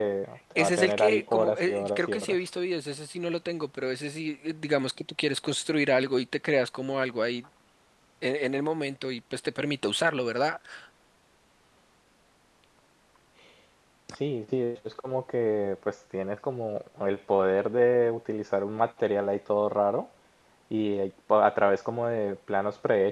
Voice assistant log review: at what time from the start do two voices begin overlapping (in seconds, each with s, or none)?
0.6 s